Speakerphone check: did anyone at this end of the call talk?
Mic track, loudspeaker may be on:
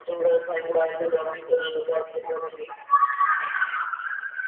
No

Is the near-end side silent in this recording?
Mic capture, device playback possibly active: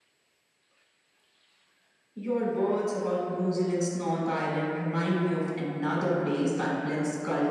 Yes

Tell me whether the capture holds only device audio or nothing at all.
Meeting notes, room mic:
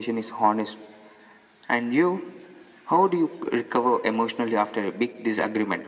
Yes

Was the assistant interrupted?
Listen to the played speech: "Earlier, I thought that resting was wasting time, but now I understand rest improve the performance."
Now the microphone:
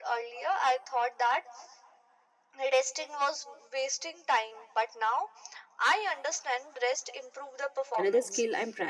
Yes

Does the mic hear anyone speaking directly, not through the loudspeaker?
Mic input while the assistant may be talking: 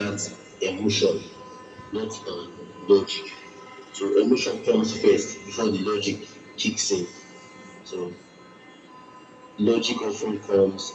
No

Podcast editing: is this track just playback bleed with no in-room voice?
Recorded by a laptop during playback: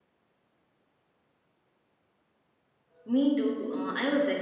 No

